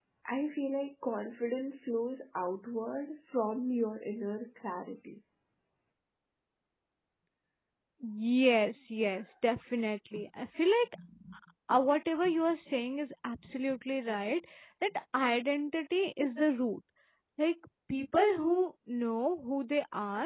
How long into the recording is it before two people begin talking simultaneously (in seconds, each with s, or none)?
none